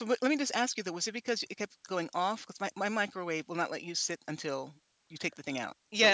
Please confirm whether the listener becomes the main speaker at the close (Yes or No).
Yes